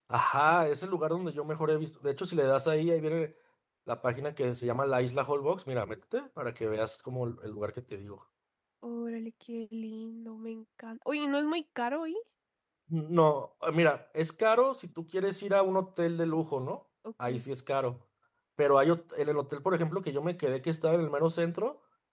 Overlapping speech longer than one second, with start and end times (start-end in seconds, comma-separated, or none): none